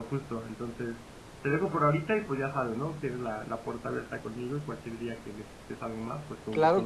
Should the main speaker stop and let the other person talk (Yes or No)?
Yes